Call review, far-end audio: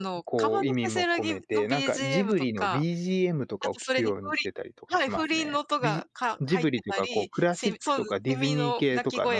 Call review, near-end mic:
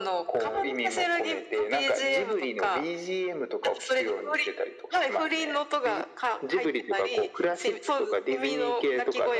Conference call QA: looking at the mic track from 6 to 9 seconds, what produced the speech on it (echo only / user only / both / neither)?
echo only